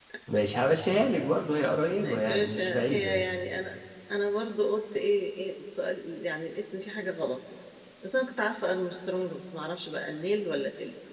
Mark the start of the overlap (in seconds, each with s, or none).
2.0 s